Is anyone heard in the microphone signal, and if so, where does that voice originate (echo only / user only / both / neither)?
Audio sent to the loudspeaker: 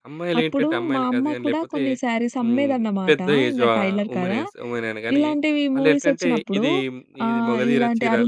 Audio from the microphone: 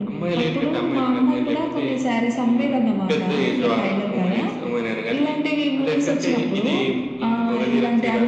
echo only